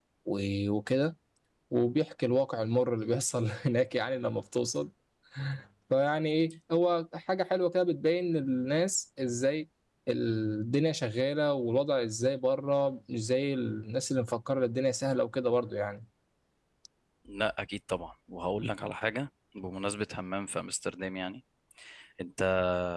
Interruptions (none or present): none